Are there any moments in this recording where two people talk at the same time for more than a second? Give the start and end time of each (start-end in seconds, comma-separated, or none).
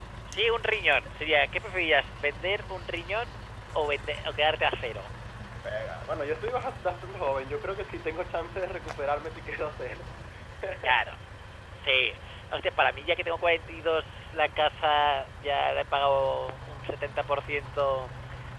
none